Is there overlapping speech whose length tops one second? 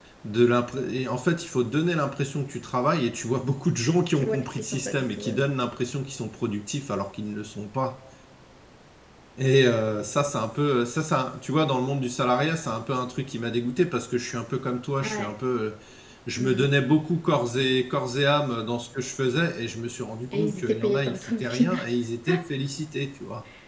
Yes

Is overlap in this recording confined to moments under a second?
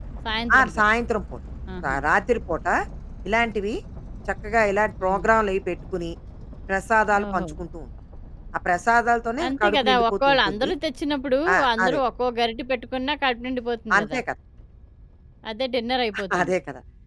No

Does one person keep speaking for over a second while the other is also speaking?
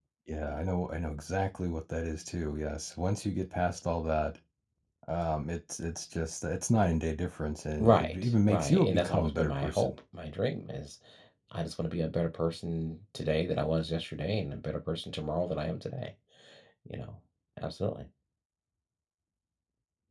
Yes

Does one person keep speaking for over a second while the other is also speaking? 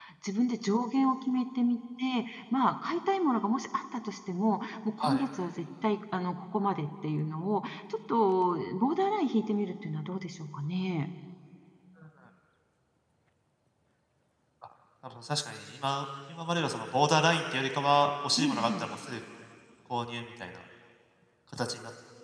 No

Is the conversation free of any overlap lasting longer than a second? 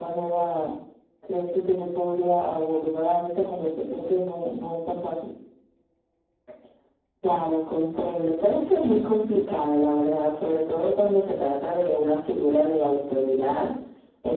Yes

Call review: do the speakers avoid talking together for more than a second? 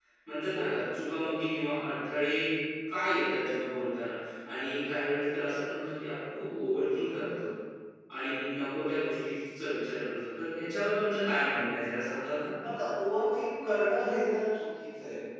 Yes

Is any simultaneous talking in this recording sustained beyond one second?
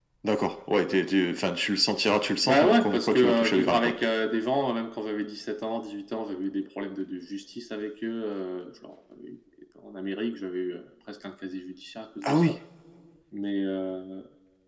Yes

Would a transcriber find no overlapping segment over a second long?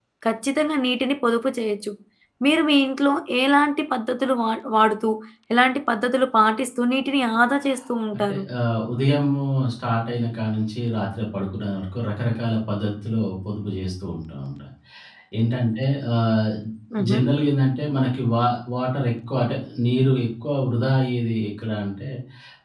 Yes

